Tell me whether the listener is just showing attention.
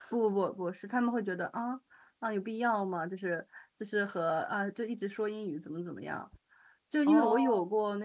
Yes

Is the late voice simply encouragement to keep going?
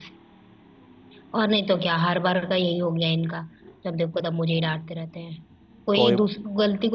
Yes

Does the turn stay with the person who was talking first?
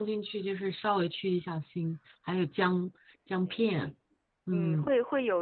No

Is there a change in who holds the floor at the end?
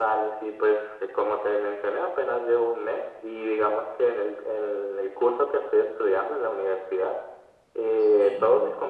No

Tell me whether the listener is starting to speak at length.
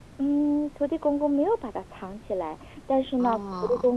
No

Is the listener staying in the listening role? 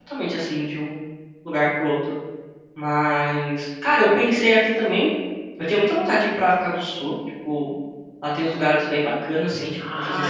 No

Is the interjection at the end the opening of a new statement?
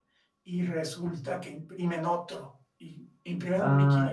Yes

